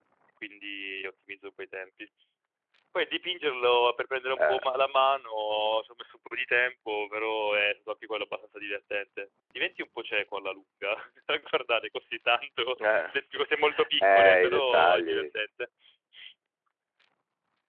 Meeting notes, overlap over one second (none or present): present